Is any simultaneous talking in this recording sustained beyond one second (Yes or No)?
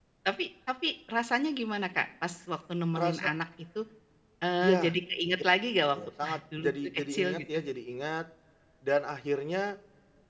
Yes